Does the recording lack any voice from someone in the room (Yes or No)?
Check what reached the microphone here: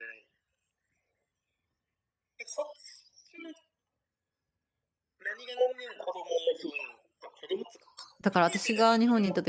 No